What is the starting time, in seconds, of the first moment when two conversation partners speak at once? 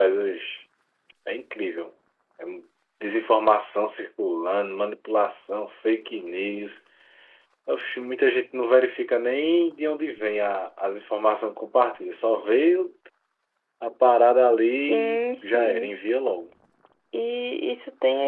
14.8 s

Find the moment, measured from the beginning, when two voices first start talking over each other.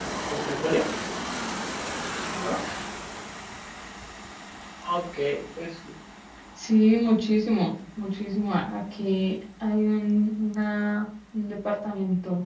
none

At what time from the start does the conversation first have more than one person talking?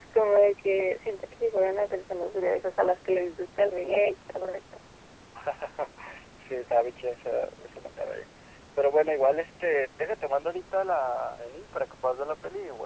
none

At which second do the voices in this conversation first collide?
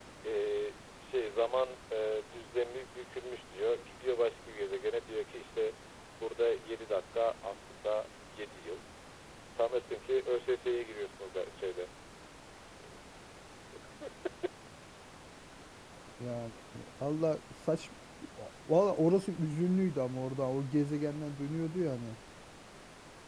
none

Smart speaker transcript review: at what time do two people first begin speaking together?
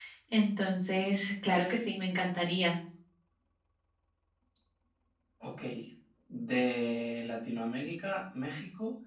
none

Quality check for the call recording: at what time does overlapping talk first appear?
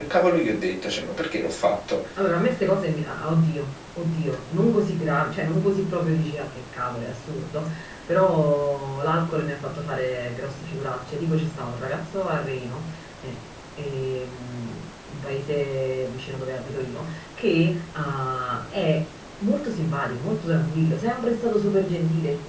none

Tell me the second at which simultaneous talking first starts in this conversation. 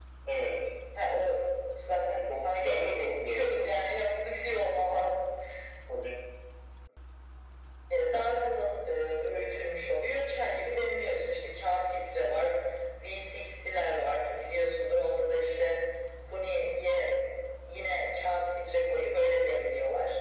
2.3 s

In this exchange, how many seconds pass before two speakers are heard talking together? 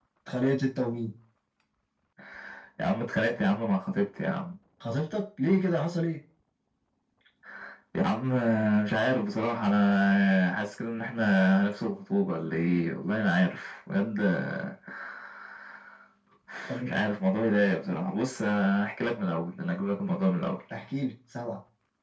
none

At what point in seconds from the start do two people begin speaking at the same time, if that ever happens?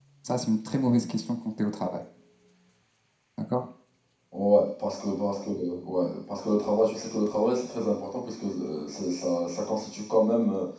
none

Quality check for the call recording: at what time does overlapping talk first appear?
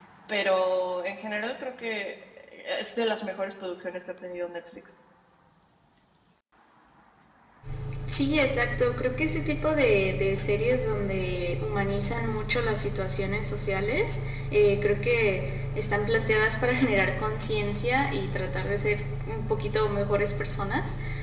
none

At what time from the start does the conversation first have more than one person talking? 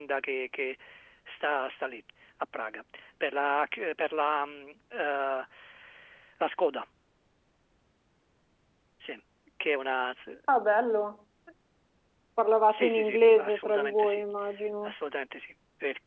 12.7 s

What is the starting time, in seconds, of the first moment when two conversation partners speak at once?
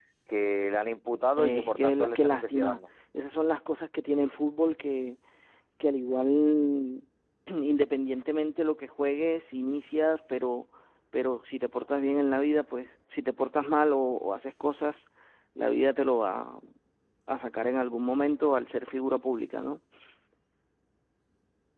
1.4 s

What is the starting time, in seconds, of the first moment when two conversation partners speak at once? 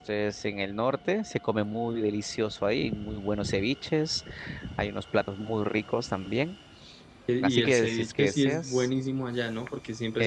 7.4 s

